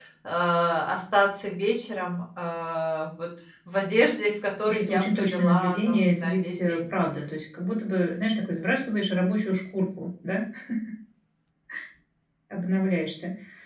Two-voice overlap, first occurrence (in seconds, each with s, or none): 4.7 s